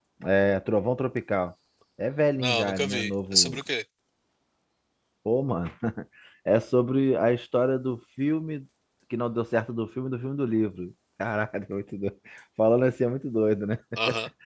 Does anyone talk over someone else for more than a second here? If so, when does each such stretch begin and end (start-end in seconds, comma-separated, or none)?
2.4-3.6